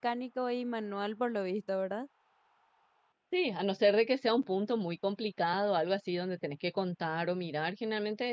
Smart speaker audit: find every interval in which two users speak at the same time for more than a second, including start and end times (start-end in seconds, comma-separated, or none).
none